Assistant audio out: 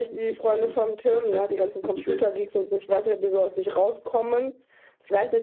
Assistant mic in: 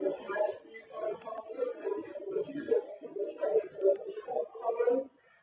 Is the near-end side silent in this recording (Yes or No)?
Yes